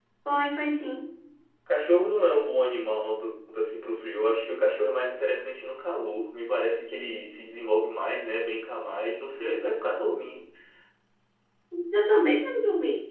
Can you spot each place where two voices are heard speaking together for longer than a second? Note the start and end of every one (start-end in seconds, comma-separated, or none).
none